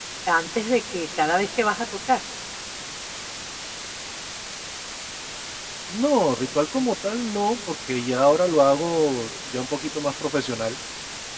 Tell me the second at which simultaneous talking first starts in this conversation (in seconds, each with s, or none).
none